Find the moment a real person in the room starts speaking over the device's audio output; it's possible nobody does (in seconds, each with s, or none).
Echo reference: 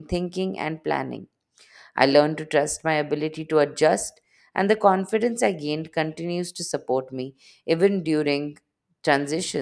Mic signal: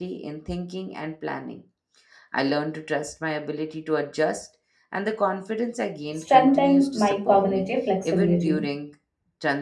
6.1 s